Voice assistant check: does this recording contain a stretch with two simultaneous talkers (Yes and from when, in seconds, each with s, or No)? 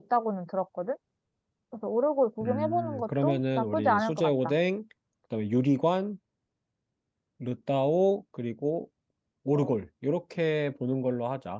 Yes, from 2.4 s